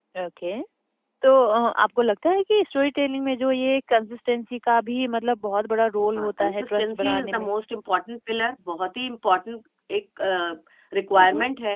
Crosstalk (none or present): present